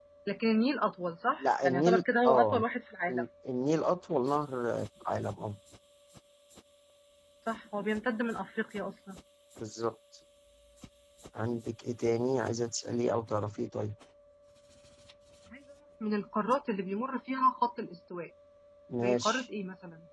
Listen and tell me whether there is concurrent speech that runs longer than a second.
Yes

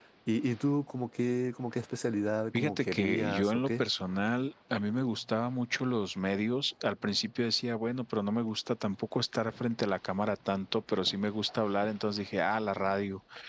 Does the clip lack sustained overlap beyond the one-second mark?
No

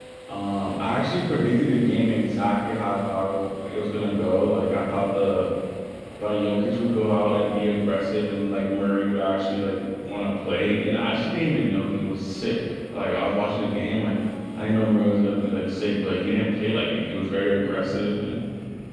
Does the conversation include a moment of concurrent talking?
No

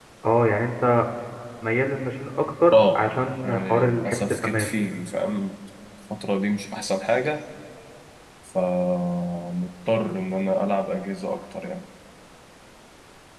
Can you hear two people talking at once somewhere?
Yes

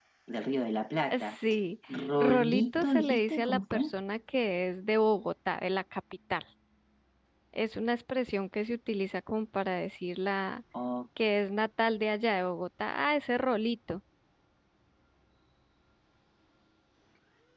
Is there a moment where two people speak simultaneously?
Yes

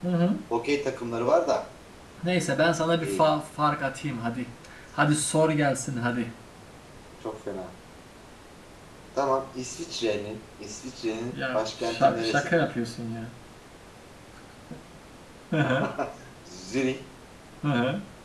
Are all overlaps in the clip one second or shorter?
No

